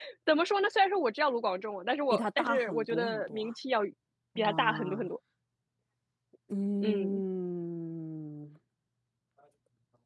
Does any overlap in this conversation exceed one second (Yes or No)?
Yes